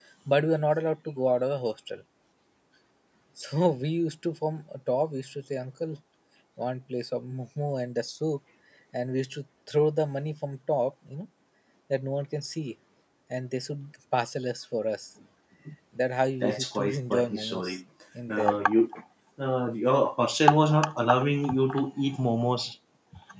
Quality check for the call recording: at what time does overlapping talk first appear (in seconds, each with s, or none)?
16.4 s